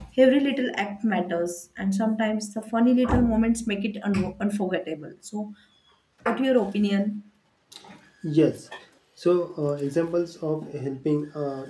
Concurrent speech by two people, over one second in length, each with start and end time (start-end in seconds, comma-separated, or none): none